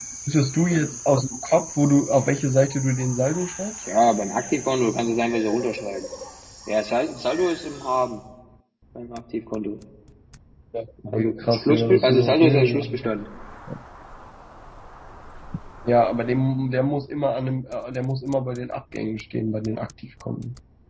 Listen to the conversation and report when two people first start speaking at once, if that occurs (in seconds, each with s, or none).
11.1 s